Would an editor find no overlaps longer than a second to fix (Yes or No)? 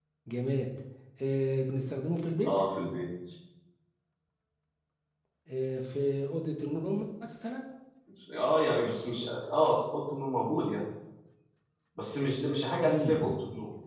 Yes